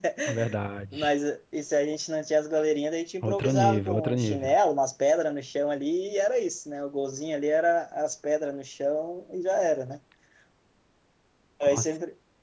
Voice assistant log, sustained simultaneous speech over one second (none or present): present